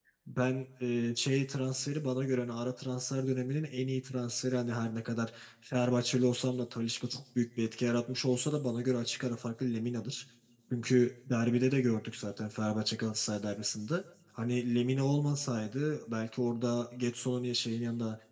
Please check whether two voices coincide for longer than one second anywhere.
No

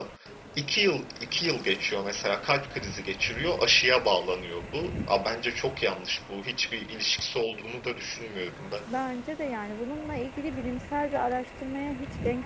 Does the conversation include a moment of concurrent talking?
No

